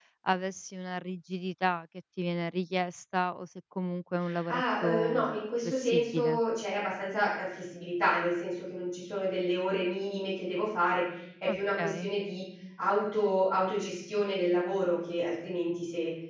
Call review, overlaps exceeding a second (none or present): present